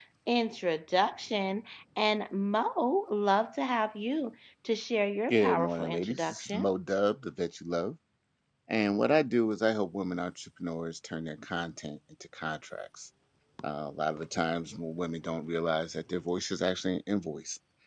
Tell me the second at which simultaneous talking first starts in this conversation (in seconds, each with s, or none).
5.3 s